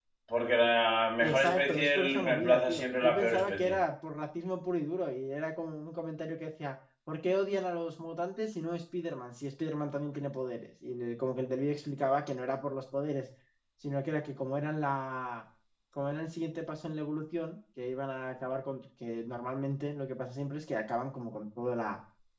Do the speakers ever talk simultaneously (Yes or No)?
Yes